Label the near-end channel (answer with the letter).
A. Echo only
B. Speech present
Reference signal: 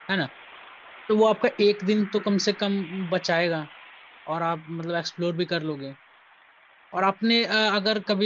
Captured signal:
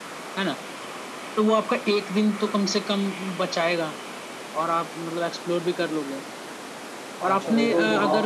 B